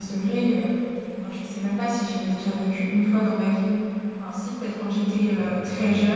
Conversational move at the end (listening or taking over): listening